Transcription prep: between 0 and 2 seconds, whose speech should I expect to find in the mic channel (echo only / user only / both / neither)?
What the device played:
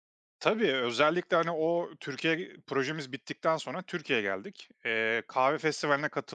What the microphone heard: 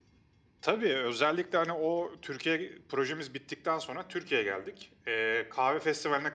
echo only